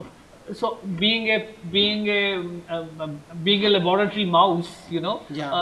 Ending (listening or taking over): listening